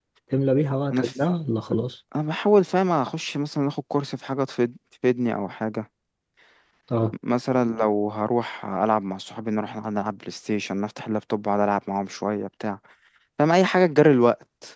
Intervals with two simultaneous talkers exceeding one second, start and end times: none

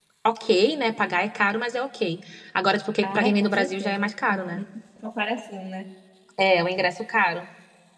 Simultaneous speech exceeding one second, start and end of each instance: 3.0-4.6

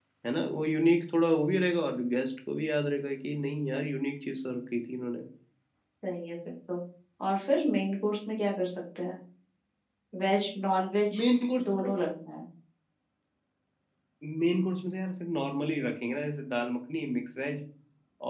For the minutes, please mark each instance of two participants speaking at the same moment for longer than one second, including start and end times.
none

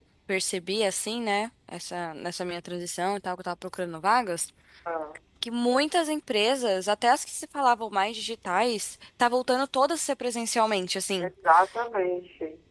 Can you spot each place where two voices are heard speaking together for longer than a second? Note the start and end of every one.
none

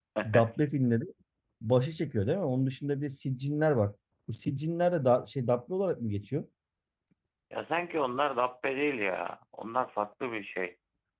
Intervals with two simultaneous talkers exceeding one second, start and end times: none

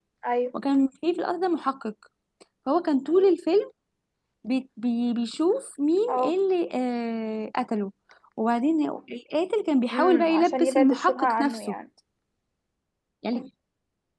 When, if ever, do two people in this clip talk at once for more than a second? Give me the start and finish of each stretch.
9.9-11.7

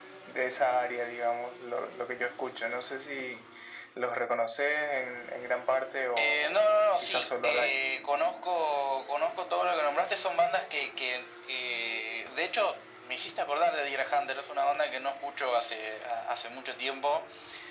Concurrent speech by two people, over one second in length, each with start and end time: 6.2-7.7

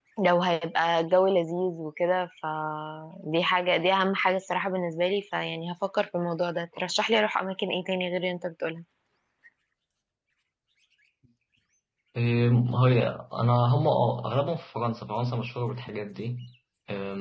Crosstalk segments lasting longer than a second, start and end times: none

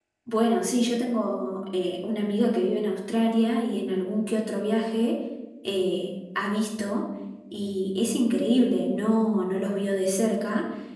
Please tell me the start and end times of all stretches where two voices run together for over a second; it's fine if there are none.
none

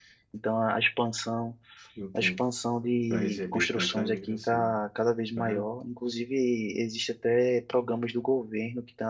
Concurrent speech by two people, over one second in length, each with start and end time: 3.1-4.7

